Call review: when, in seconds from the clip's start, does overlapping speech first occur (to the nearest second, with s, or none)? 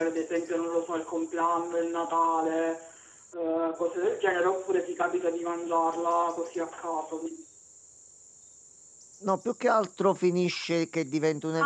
none